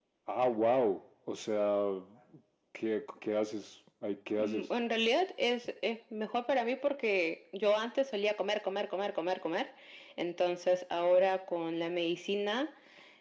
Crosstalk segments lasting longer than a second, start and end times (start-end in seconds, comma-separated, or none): none